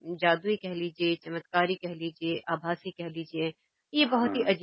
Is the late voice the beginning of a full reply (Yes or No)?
No